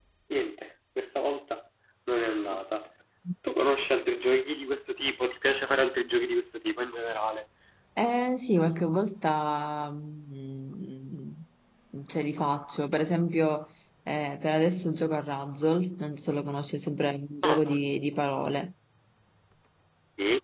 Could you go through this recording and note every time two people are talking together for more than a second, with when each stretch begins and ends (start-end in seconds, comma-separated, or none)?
none